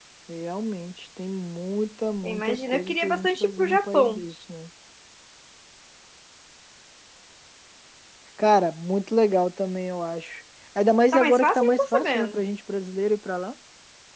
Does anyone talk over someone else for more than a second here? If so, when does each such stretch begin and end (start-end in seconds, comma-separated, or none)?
2.2-4.2, 11.1-12.4